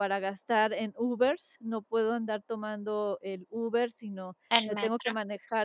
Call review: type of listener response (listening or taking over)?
listening